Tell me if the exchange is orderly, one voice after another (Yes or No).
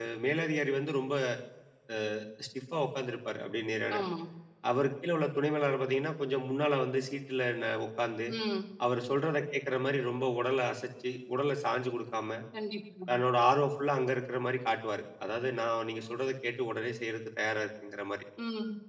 Yes